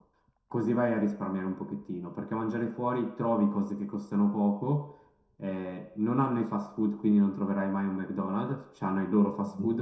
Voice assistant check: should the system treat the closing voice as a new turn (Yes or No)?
No